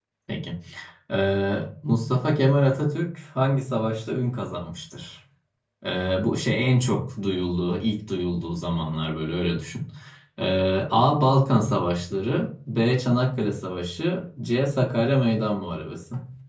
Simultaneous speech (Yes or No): No